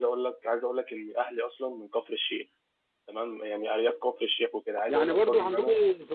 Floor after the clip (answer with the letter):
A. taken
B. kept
A